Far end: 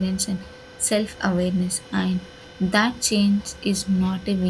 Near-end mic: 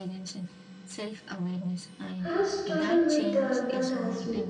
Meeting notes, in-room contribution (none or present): present